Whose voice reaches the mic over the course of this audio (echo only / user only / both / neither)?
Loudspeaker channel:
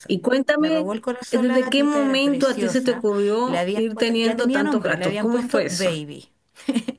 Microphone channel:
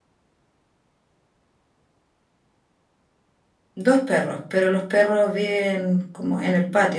user only